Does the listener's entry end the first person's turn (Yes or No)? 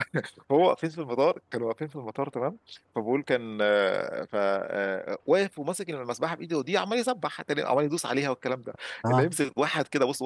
No